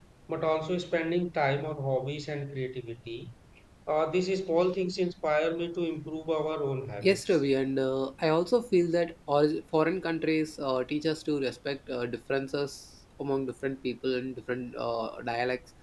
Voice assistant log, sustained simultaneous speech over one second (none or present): none